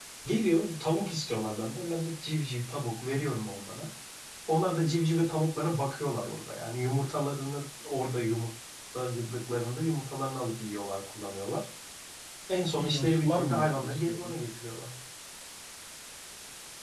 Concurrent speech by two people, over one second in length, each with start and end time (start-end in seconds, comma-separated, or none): 12.8-14.4